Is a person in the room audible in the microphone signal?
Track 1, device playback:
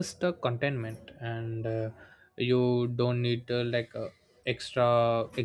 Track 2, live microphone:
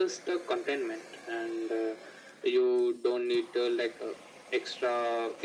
No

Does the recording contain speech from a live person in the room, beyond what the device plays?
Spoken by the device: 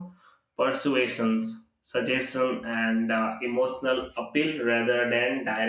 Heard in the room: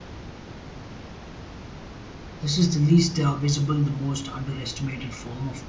Yes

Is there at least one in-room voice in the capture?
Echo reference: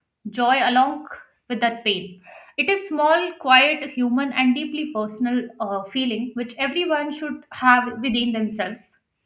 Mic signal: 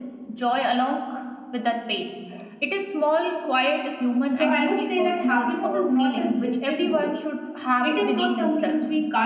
Yes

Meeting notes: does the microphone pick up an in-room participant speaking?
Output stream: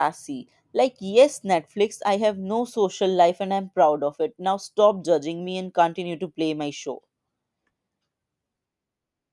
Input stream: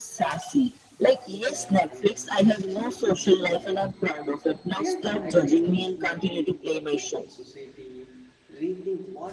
Yes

